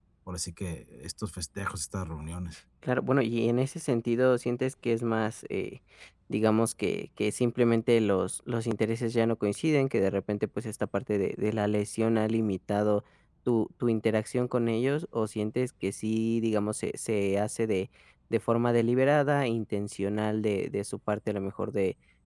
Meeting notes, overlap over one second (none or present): none